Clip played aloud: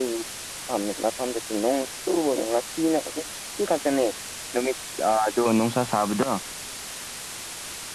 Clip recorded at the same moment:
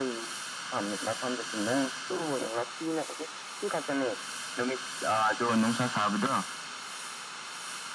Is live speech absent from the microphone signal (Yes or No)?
Yes